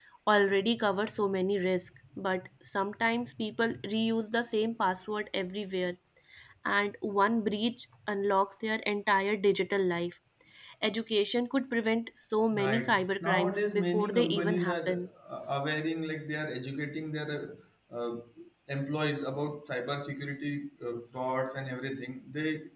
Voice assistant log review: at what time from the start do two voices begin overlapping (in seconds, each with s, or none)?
12.5 s